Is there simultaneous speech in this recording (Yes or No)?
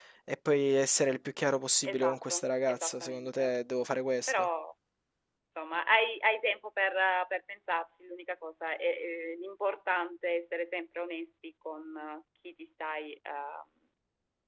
Yes